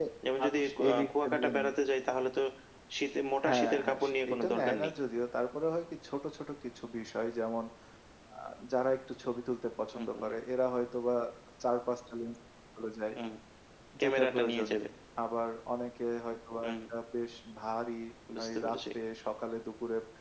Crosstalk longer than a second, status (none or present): present